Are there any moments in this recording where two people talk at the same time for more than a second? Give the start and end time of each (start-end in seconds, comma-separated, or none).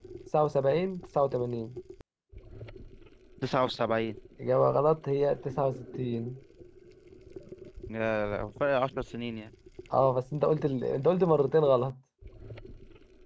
none